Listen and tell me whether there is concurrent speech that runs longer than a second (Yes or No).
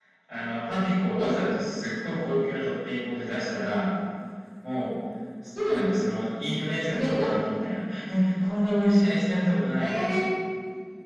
No